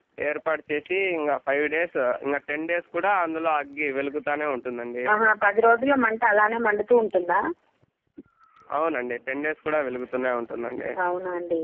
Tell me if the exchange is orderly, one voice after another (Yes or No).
Yes